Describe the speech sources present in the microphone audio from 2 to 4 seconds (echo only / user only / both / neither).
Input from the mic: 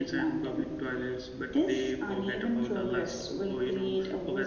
echo only